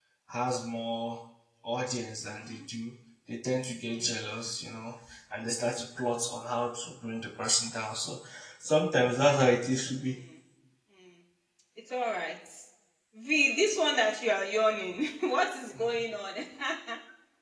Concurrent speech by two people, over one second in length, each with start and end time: none

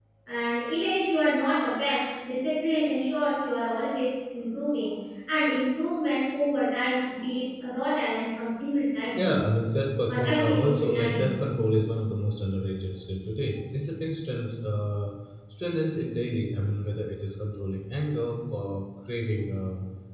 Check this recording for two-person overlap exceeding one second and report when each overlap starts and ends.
10.1-11.3

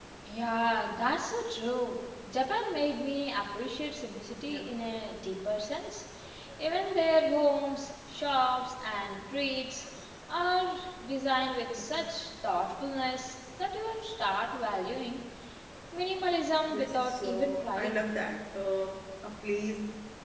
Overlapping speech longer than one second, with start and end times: 16.7-18.0

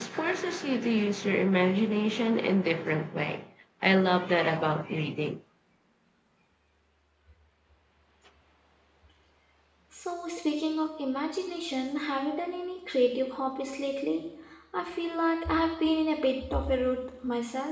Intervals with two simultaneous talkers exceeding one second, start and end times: none

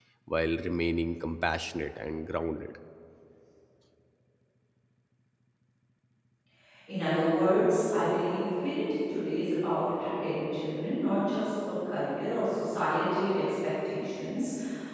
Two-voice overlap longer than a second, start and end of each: none

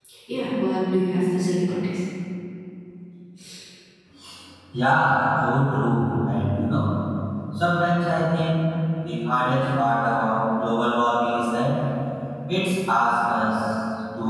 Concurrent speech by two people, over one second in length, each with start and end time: none

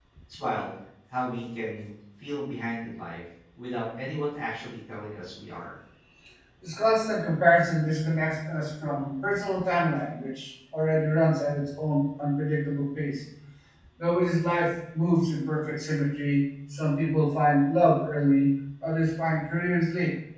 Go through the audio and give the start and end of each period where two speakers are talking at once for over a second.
none

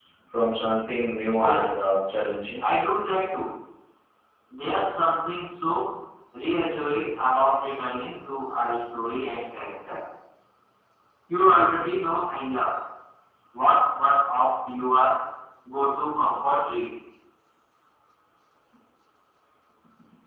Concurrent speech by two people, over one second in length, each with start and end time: none

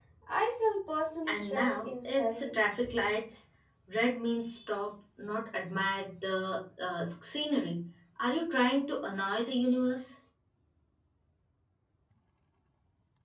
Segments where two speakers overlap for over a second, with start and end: 1.3-2.5

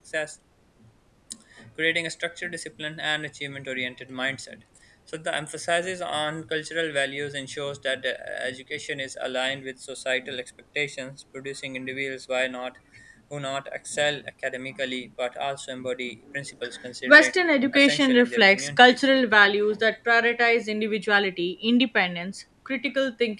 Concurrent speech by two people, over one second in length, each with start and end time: 17.7-19.1

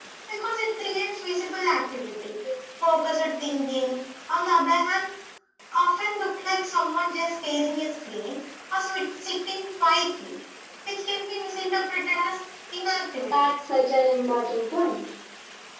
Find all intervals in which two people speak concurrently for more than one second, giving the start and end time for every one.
none

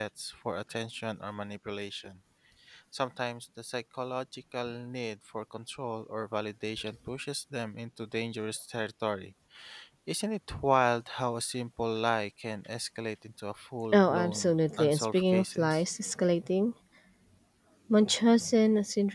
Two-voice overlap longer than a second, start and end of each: 13.9-15.8

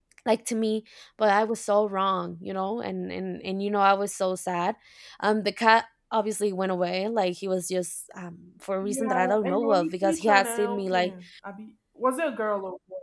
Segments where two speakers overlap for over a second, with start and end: 8.8-11.1

